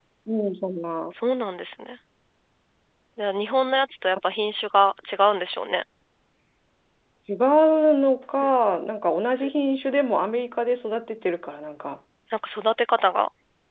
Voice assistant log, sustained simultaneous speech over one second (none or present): none